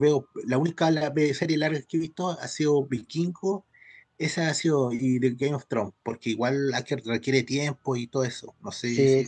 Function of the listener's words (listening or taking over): taking over